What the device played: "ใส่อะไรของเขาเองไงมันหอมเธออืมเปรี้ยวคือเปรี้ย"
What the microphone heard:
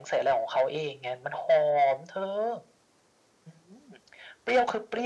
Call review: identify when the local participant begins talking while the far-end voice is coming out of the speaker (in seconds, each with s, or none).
none